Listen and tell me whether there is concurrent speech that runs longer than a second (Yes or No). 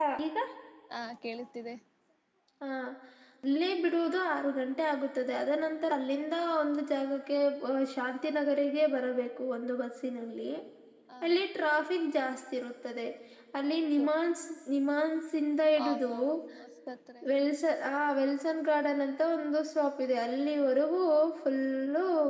No